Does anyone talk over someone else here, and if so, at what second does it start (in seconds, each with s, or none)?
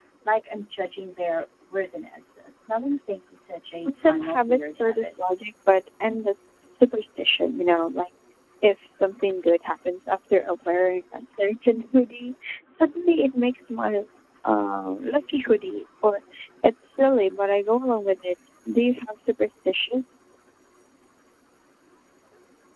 3.9 s